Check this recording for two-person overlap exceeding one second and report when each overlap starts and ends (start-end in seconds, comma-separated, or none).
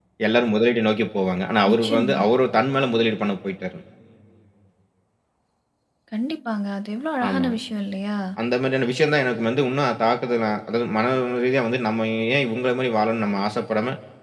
none